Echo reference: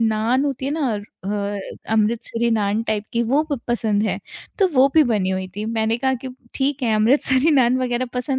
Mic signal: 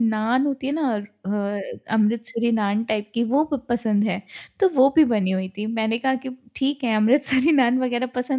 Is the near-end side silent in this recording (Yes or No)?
Yes